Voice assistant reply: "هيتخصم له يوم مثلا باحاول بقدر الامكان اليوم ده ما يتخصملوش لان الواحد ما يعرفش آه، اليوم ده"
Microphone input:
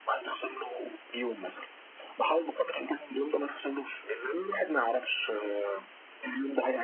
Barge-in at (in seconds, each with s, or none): none